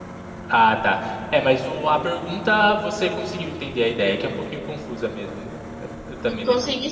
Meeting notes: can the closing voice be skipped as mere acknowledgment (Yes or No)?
No